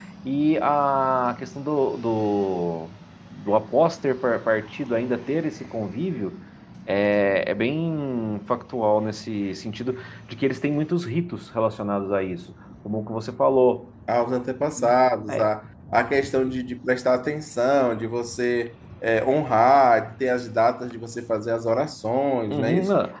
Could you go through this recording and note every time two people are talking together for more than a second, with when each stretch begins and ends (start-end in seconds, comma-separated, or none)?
none